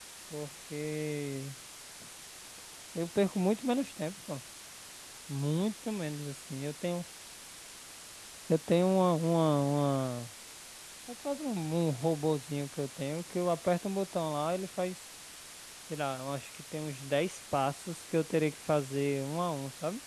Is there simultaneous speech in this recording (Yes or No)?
No